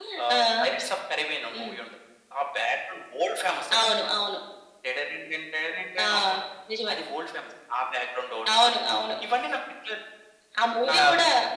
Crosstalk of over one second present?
No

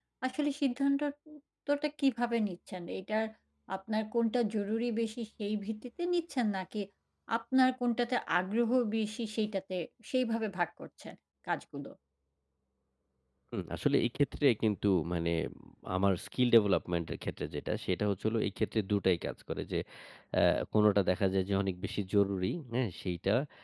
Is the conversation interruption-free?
Yes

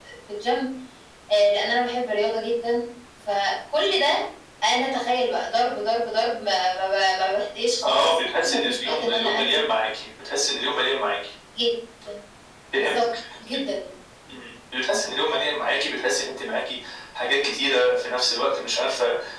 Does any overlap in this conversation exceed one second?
Yes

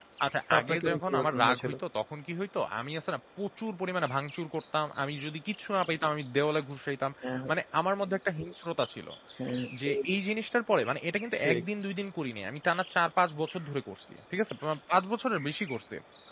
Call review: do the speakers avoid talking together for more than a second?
No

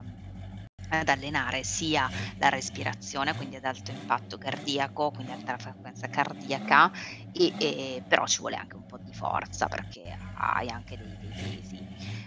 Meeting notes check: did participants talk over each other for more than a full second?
No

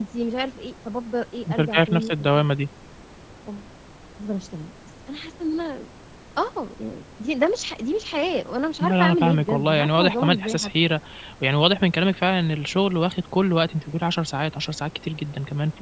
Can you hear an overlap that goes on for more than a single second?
Yes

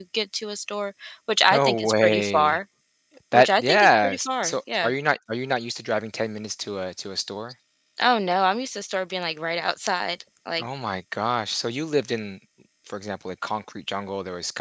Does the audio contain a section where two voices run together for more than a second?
Yes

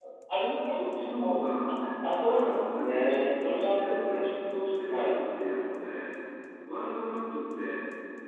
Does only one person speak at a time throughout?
No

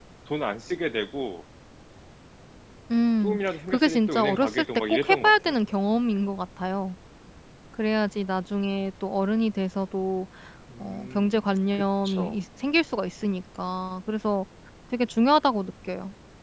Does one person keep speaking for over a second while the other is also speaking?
Yes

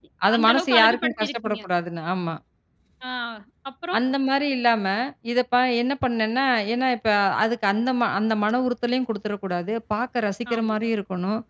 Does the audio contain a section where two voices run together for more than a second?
Yes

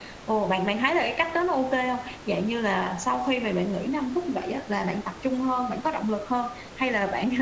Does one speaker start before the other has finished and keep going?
No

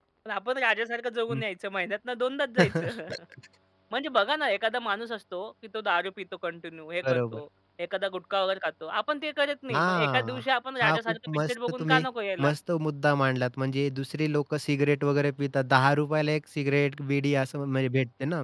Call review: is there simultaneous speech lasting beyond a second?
Yes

